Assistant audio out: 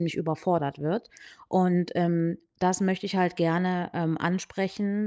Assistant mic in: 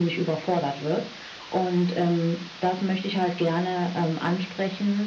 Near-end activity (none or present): none